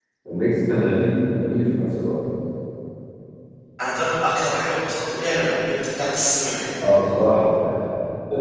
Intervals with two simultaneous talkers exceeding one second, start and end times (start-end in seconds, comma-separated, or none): none